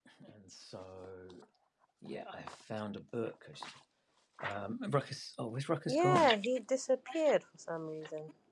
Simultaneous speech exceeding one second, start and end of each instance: none

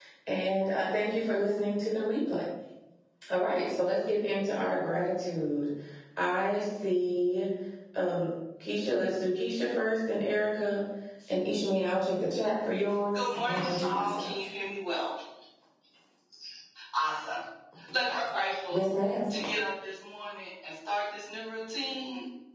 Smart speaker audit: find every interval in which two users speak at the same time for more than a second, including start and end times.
13.1-14.3

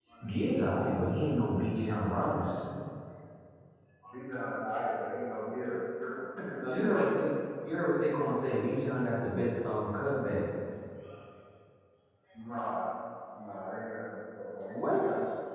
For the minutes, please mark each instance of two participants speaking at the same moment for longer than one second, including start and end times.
none

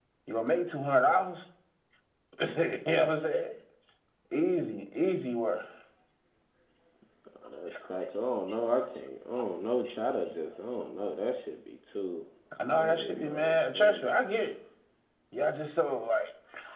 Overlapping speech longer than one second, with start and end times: 12.8-14.1

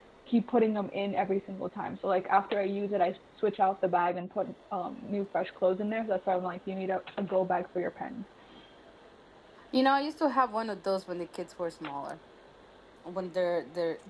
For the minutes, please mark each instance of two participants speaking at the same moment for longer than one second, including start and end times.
none

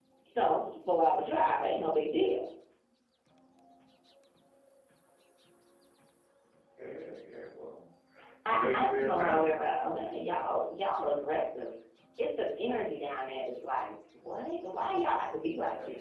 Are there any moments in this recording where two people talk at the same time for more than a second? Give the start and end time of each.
8.5-10.0

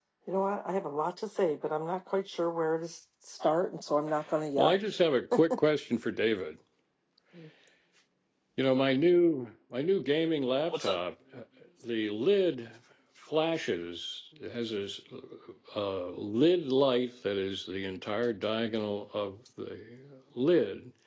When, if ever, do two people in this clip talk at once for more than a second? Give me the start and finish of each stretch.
none

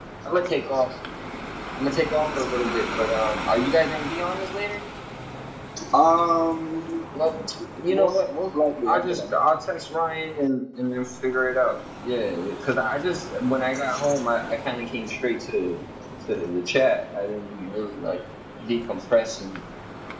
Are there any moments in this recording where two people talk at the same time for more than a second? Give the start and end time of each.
none

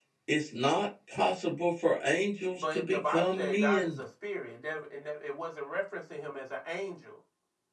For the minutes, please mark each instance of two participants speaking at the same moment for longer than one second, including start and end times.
2.6-4.0

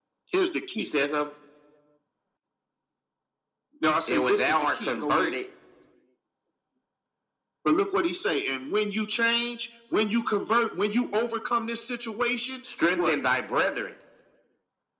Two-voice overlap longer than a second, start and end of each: 4.1-5.3

